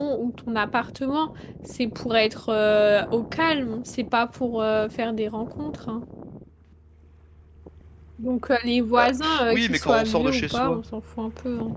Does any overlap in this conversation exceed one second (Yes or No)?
Yes